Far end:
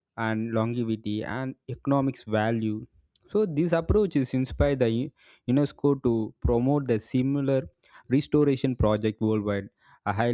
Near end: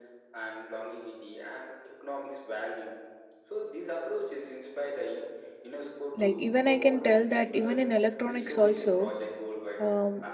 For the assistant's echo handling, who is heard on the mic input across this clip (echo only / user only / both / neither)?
both